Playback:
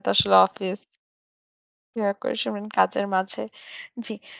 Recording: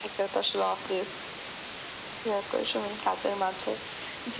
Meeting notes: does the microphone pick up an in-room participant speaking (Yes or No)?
No